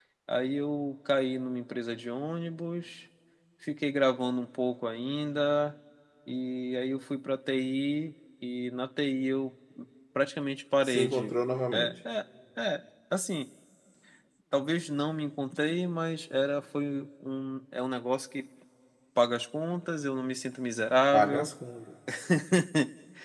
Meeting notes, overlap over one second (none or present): none